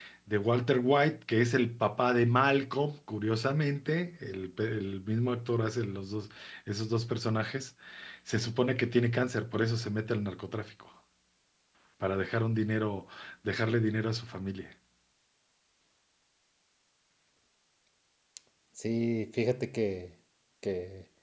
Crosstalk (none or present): none